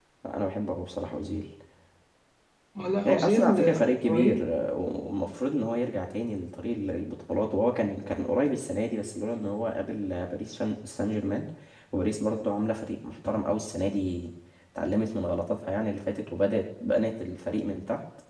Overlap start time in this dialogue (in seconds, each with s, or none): 3.0 s